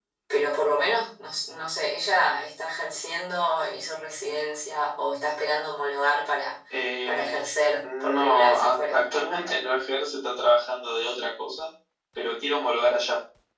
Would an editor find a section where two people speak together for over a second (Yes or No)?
Yes